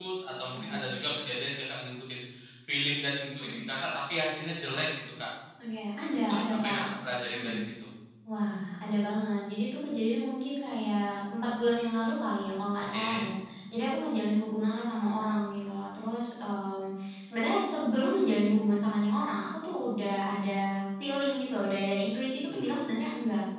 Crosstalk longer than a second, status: none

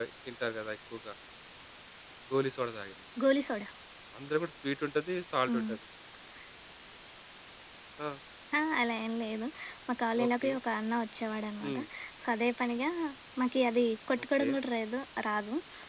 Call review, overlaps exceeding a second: none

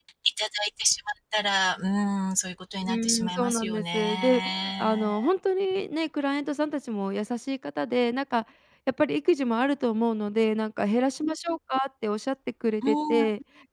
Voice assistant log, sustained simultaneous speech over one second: present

